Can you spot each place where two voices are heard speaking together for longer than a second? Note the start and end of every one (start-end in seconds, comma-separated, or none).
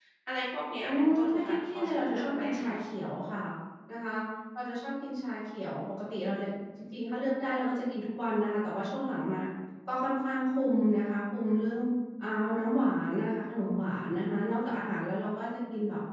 0.8-2.8